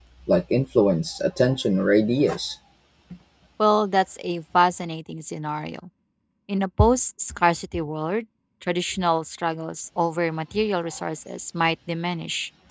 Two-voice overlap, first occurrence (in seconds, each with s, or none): none